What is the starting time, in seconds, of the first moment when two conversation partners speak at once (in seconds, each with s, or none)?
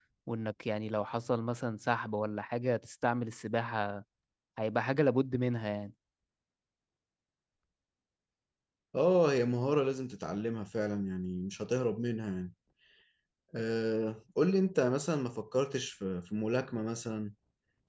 none